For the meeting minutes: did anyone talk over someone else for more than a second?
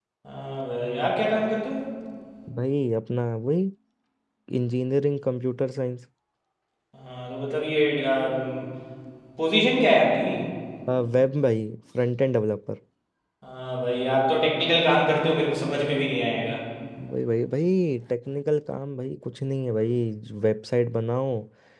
No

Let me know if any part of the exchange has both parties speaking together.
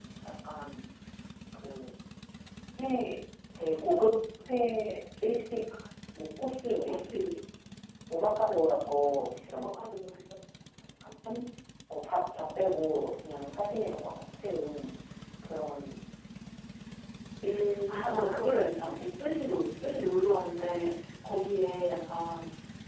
Yes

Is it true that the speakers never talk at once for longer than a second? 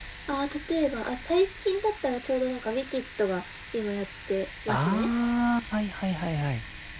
Yes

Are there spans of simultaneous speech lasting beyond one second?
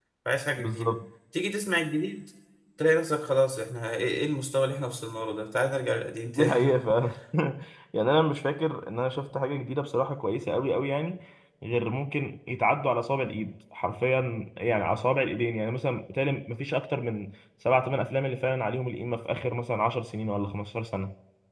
No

